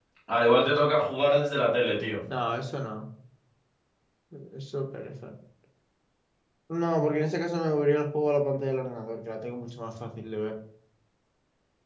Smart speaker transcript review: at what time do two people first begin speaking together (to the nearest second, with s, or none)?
none